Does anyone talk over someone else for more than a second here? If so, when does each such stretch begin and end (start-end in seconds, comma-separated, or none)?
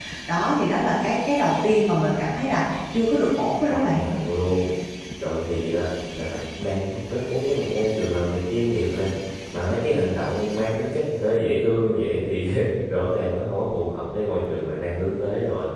none